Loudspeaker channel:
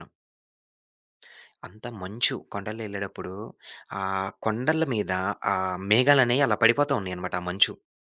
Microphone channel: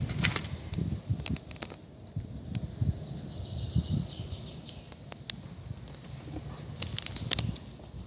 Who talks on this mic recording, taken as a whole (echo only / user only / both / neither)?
neither